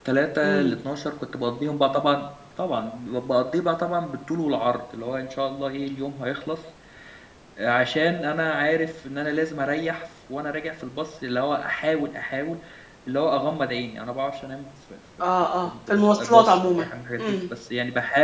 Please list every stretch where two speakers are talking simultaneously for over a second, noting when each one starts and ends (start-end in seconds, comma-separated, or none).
15.4-16.8